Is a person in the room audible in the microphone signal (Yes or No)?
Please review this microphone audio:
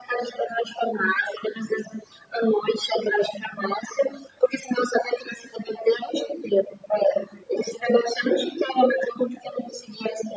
No